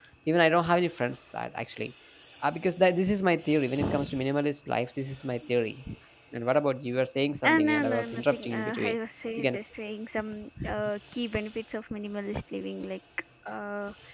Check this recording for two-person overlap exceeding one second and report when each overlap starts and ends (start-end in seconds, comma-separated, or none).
7.5-9.0